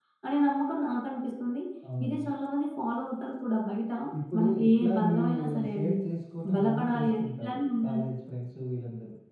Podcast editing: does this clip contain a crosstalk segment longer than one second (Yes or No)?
Yes